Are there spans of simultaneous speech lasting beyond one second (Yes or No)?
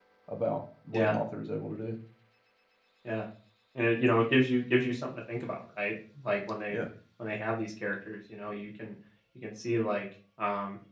No